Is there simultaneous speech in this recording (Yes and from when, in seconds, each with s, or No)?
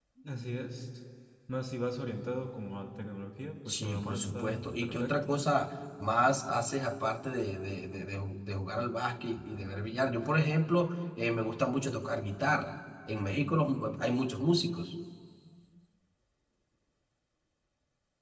Yes, from 3.7 s